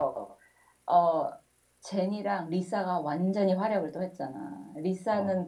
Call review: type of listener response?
listening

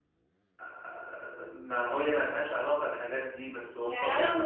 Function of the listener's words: taking over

